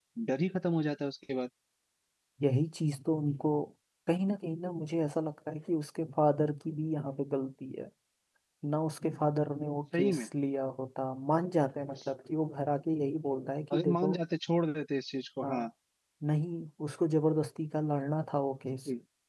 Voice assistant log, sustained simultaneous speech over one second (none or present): none